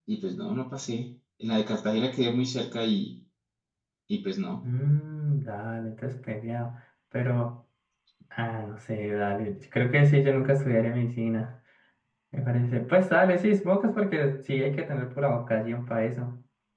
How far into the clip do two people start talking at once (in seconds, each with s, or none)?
none